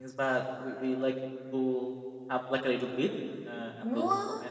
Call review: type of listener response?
listening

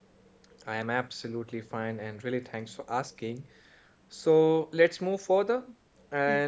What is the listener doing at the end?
listening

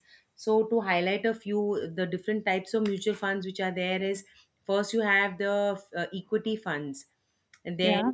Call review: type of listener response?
listening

